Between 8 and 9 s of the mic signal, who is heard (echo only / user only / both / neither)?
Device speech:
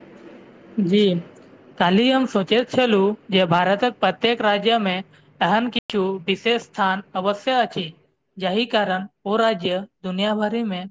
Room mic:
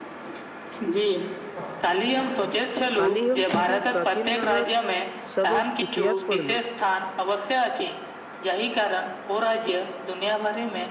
echo only